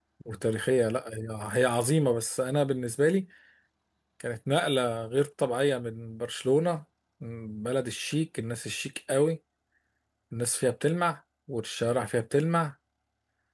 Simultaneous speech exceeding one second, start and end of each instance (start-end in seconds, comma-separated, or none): none